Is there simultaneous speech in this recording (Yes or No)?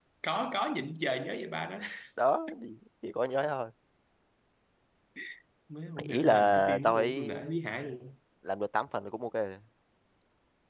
Yes